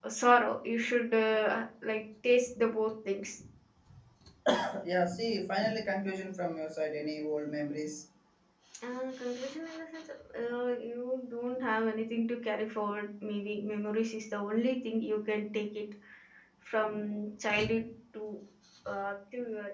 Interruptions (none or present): none